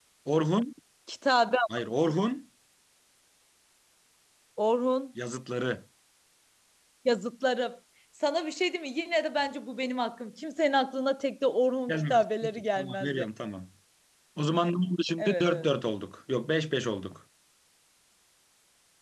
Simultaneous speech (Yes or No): Yes